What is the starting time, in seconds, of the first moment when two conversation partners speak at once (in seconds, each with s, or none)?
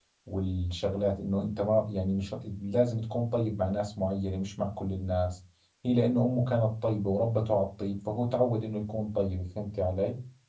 none